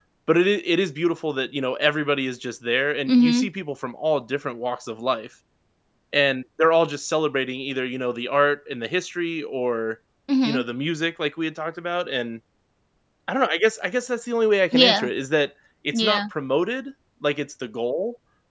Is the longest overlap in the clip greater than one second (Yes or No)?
No